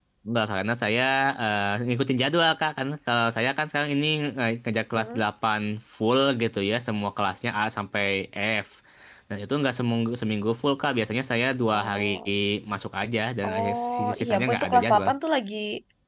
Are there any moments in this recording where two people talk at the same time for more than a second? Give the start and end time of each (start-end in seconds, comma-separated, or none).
13.5-15.1